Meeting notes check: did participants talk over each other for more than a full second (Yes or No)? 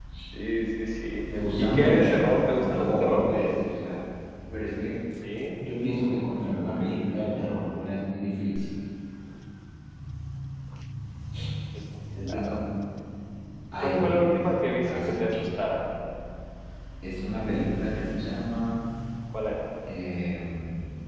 Yes